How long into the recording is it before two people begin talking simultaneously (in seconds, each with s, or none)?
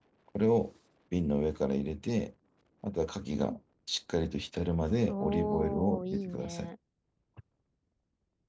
5.1 s